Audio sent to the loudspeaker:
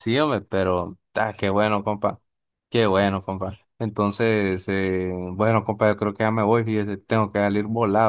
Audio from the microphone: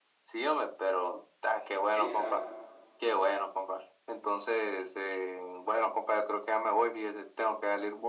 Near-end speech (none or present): present